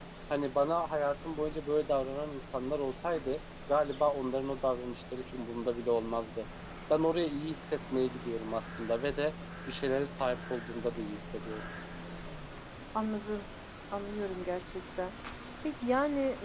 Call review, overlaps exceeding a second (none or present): none